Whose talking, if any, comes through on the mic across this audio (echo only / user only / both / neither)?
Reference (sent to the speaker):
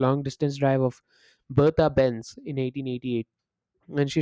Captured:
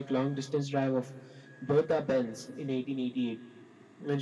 echo only